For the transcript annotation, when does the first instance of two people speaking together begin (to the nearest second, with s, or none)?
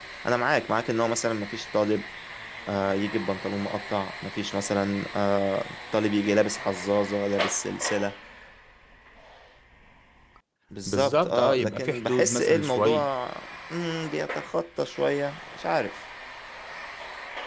11 s